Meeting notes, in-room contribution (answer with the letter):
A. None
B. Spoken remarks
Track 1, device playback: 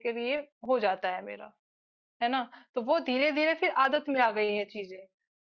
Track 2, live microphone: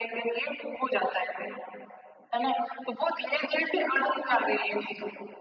A